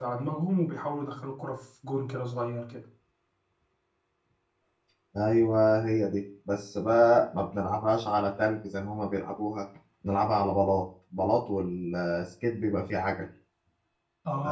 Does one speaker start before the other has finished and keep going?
No

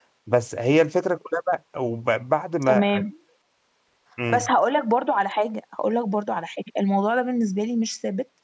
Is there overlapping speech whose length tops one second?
No

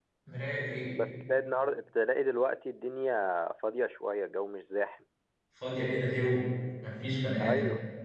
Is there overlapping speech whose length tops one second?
No

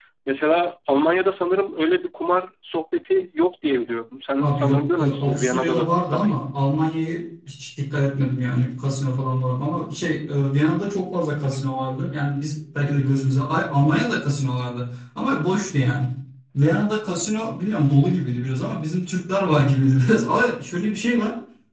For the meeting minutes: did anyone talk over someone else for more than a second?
Yes, from 4.4 s

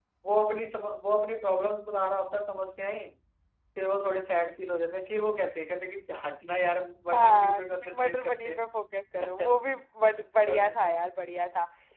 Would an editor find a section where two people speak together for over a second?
Yes, from 7.1 s

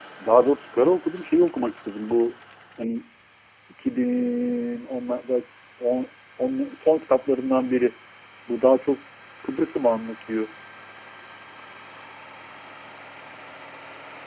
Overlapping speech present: No

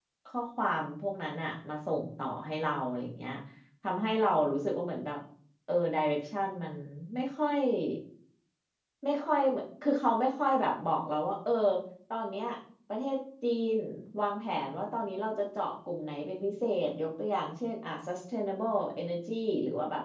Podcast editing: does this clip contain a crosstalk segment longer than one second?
No

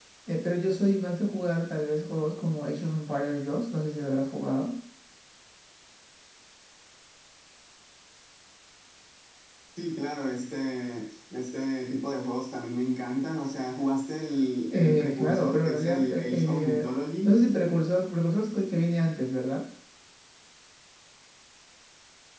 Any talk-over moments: Yes, from 14.7 s

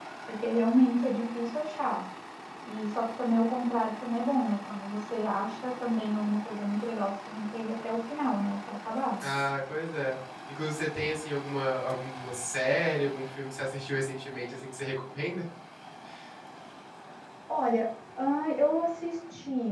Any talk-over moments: No

